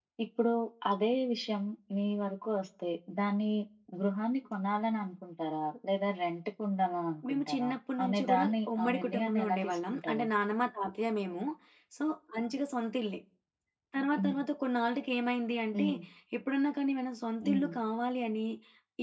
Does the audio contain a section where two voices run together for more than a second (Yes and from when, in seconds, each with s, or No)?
Yes, from 7.3 s